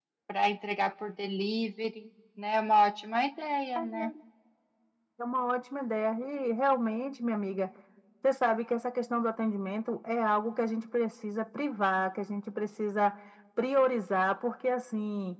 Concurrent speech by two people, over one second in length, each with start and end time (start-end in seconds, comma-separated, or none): none